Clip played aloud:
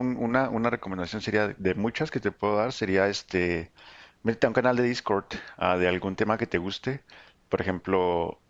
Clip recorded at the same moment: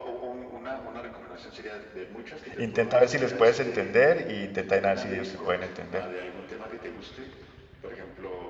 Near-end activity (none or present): present